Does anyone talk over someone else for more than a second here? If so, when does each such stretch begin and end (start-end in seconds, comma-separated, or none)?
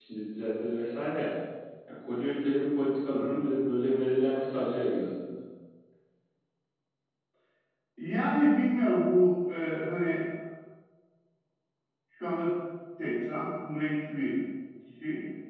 none